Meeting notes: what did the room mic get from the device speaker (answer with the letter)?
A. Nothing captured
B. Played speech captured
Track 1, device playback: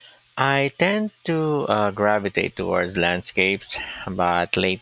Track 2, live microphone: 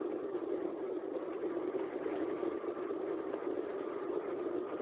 A